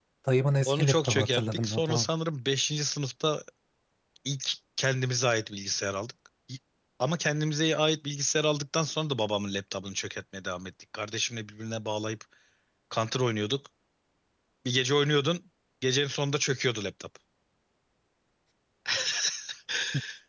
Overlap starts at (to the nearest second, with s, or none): 1 s